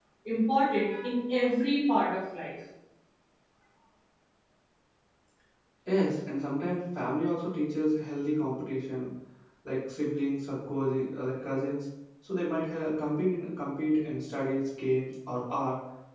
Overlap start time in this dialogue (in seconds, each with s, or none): none